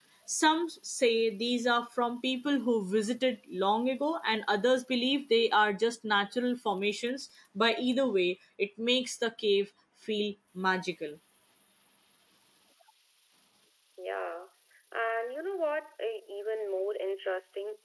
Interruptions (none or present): none